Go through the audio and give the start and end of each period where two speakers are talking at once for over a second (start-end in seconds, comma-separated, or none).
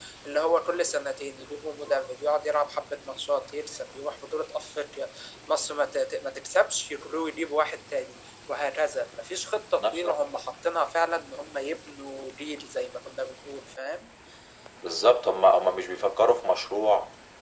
none